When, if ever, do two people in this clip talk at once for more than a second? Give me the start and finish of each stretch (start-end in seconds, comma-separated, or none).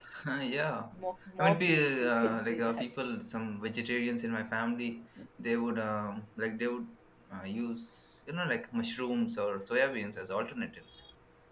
1.4-2.9